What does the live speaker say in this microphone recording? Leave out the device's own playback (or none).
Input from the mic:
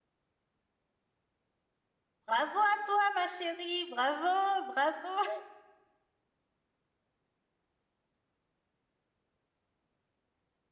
Bravo à toi, ma chérie. Bravo, bravo.